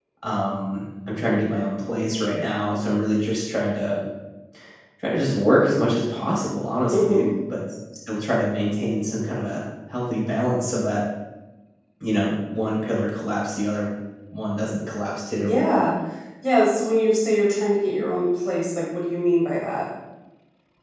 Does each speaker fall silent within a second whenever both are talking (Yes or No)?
Yes